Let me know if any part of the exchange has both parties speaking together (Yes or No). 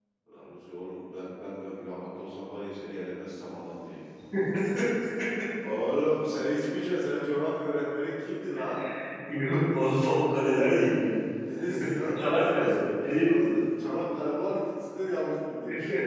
Yes